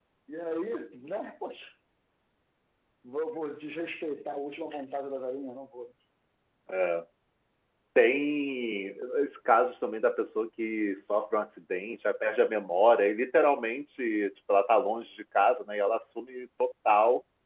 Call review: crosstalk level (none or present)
none